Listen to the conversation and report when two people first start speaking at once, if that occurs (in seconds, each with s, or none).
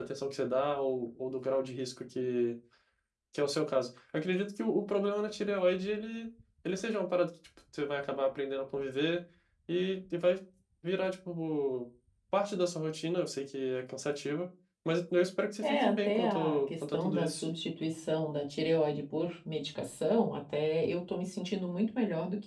15.6 s